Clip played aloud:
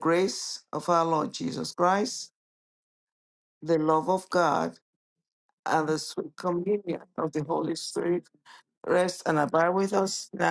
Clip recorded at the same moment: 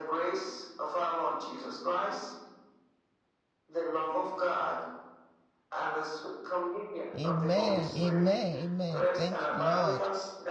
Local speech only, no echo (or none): Amen. Amen. Amen. Thank you, Lord.